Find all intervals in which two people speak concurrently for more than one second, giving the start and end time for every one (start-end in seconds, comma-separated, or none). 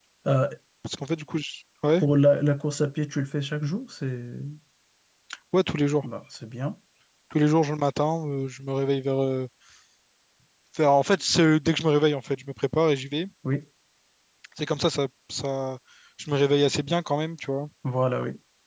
none